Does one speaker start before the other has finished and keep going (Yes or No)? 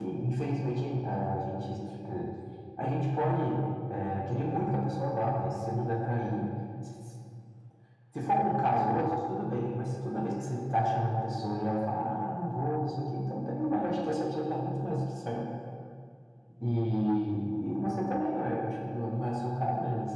No